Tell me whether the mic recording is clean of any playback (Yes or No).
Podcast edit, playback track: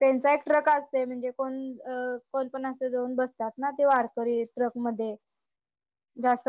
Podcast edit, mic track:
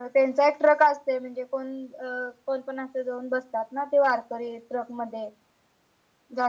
No